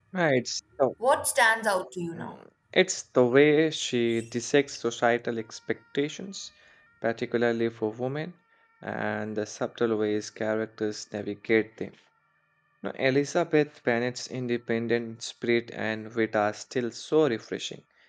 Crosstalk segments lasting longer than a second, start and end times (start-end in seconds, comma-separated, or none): none